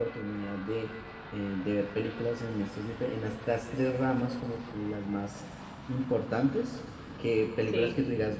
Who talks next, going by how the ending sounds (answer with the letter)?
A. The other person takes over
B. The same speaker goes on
B